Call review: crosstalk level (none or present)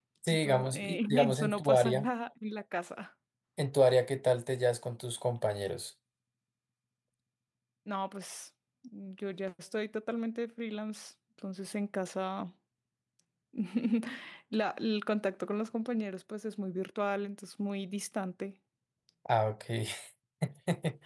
present